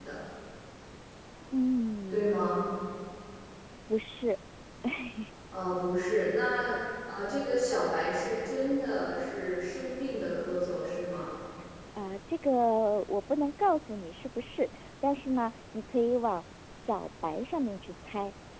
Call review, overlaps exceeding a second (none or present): none